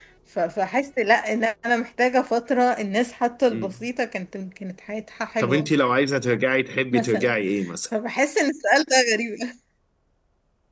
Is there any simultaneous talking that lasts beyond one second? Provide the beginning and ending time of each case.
none

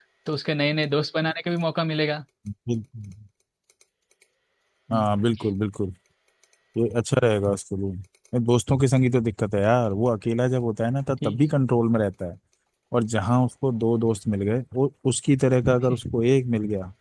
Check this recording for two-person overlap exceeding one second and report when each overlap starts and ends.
none

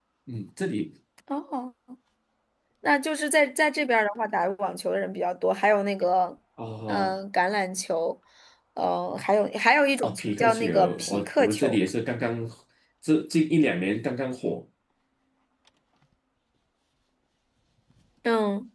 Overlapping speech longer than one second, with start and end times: 10.0-11.8

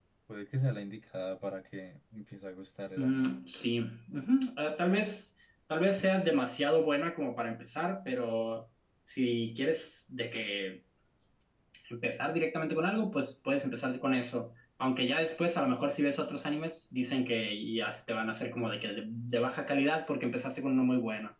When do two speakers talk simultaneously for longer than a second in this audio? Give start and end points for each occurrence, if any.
none

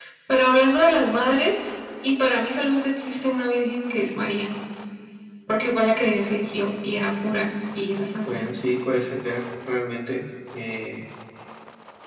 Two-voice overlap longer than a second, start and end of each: none

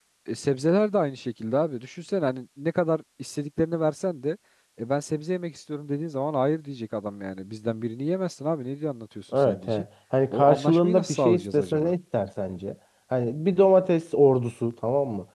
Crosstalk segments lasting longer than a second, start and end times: 10.3-11.9

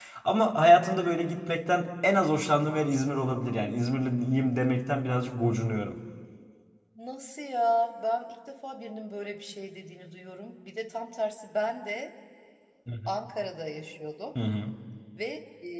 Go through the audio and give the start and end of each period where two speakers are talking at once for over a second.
none

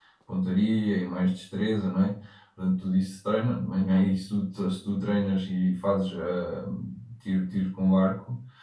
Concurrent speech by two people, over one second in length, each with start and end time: none

